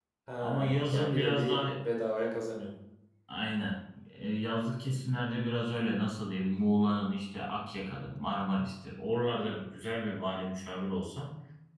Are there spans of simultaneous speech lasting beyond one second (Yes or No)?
Yes